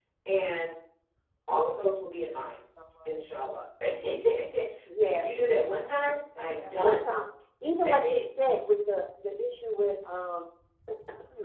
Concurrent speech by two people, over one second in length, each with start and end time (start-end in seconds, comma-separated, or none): 5.7-7.1